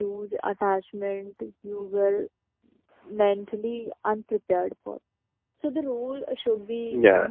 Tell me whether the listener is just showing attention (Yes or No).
Yes